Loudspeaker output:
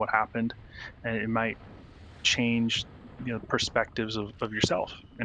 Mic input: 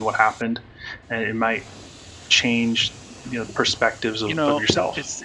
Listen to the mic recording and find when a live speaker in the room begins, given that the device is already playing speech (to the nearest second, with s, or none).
4 s